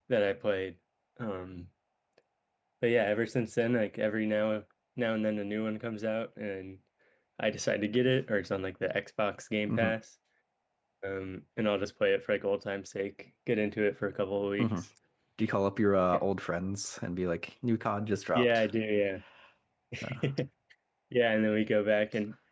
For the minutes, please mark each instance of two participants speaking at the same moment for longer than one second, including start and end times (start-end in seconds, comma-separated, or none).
none